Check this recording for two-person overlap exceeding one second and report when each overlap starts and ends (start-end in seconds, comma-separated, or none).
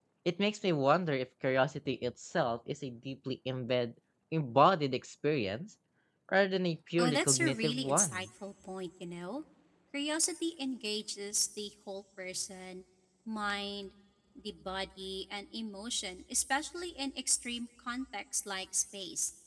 7.0-8.3